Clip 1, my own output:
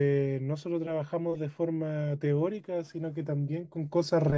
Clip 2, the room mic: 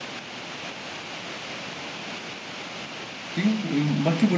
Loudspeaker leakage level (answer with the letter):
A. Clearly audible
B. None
B